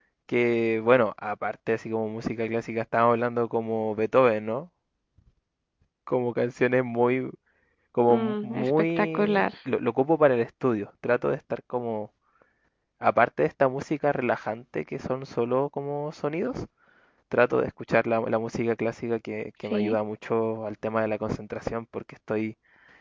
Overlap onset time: 8.1 s

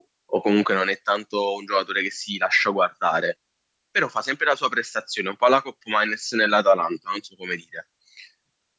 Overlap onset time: none

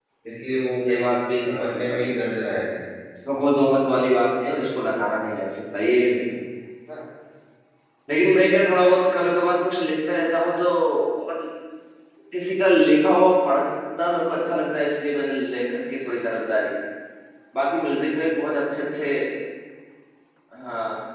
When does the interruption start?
0.8 s

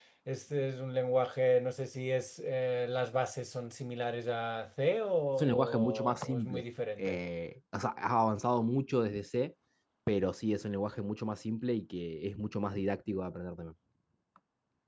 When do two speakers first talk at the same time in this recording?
5.4 s

